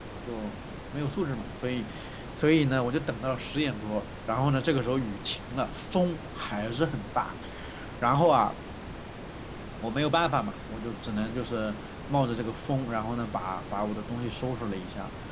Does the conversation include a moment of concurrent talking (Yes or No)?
No